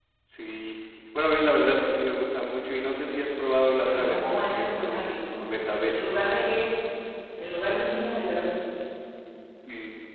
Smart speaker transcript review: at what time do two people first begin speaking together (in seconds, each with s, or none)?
3.8 s